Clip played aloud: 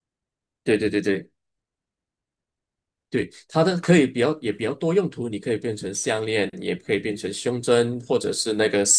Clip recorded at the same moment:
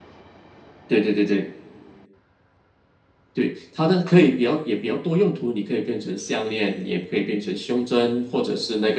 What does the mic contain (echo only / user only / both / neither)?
echo only